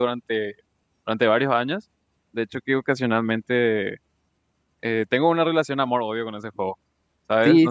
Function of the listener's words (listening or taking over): taking over